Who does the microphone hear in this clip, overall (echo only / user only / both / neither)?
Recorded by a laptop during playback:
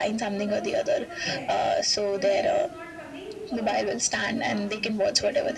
both